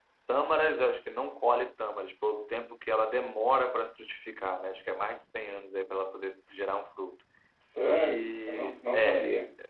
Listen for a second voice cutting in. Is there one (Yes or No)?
Yes